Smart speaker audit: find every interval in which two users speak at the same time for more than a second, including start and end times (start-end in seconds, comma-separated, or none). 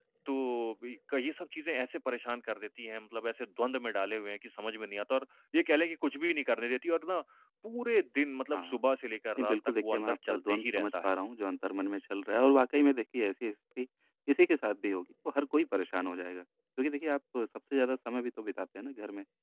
9.4-11.1